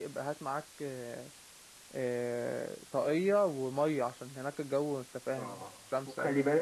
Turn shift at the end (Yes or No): Yes